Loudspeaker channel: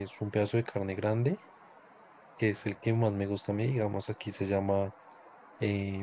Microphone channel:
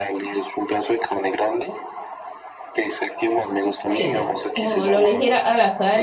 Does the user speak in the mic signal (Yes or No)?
Yes